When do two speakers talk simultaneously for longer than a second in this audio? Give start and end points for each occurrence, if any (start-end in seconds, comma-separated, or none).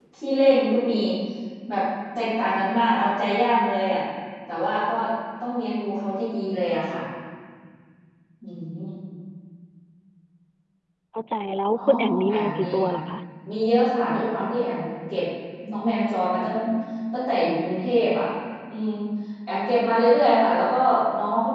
11.7-13.0